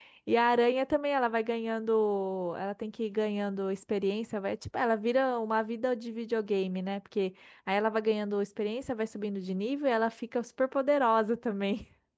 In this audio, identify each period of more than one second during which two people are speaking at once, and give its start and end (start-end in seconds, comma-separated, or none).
none